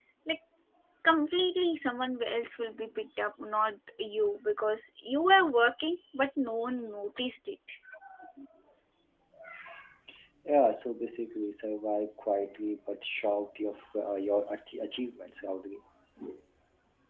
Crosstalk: none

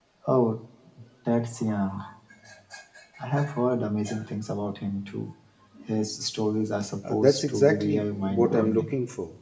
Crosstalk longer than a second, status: present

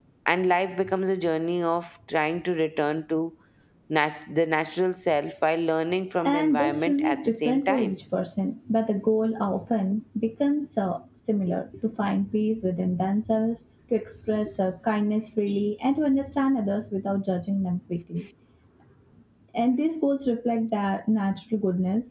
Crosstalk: present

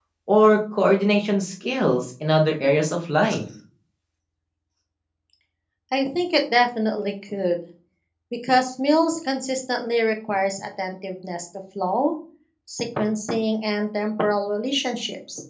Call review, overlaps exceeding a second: none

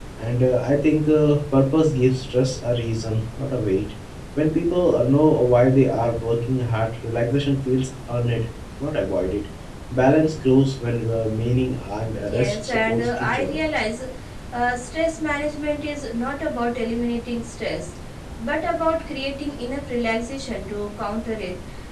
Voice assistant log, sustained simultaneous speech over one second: present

